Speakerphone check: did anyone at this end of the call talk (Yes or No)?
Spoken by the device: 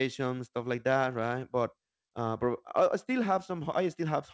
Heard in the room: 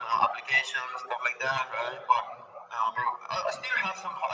No